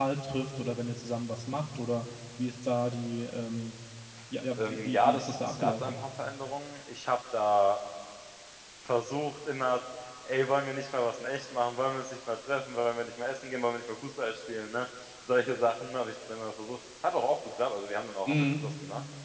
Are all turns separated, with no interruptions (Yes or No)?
No